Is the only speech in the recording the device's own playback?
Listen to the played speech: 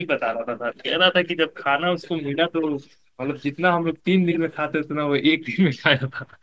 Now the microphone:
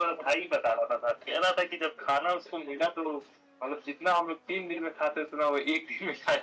Yes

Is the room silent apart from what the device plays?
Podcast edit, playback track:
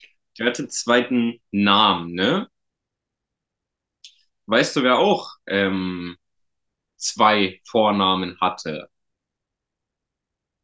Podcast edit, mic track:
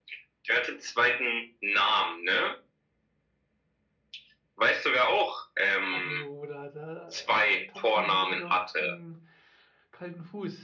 No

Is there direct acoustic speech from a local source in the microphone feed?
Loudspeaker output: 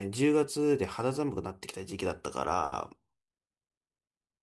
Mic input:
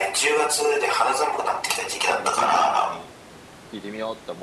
Yes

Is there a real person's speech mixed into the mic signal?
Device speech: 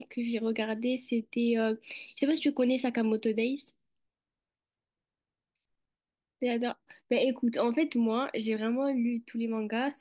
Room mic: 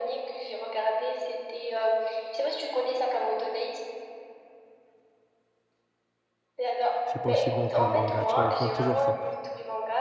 Yes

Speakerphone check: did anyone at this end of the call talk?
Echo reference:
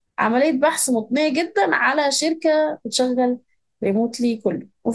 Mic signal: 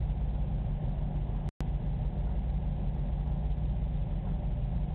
No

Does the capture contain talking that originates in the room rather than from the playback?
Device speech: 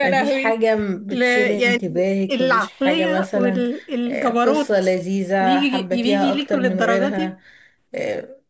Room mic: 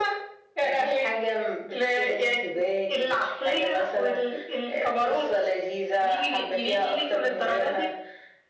No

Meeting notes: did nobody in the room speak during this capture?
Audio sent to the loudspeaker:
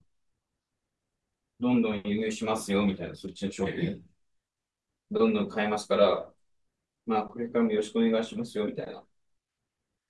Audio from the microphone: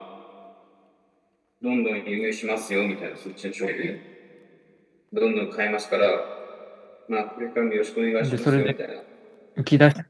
No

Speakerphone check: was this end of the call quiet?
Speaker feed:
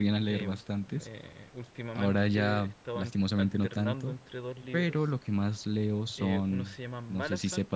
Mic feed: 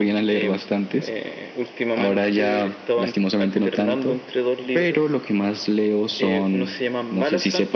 Yes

